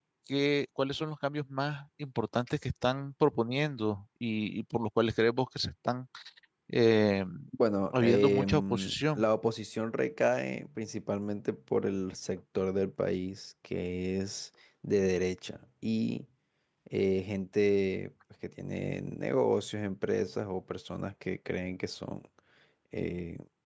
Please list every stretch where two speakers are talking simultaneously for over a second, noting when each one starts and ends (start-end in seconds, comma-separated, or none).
7.9-9.3